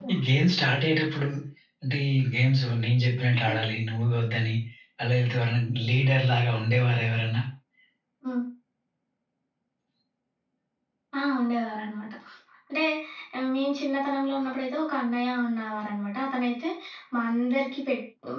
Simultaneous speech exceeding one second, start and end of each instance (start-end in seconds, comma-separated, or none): none